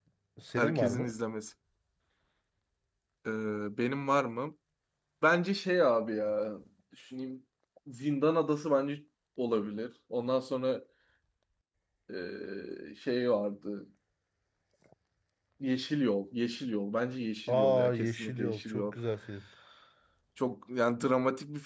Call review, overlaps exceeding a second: present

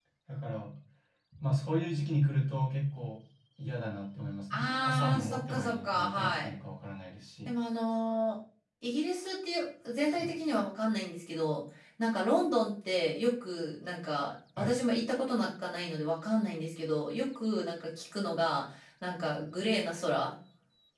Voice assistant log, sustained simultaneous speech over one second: present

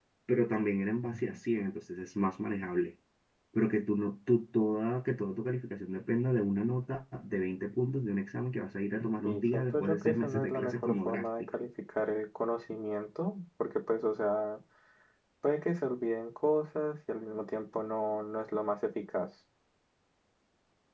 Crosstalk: present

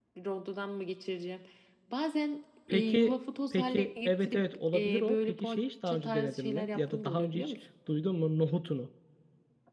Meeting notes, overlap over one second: present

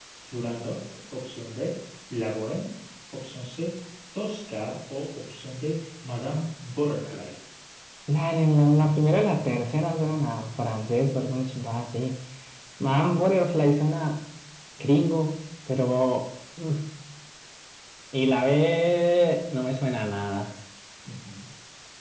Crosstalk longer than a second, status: none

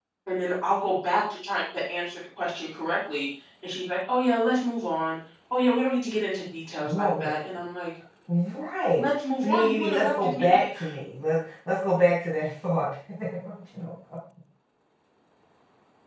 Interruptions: present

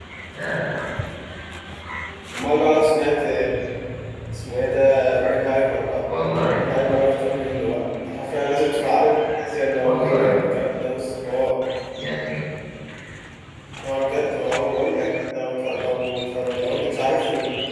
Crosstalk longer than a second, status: none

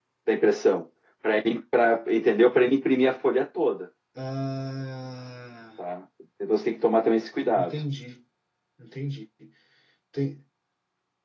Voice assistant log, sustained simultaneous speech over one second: none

